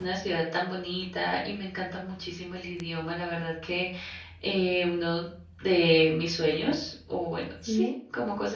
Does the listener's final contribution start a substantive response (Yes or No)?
No